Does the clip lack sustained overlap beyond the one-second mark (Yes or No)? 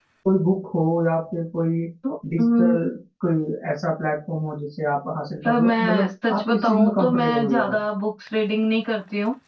No